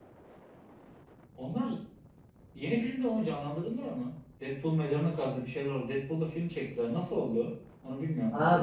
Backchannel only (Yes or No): No